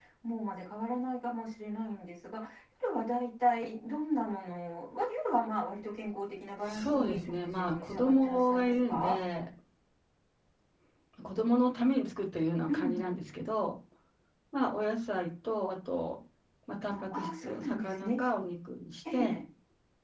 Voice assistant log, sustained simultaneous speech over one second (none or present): present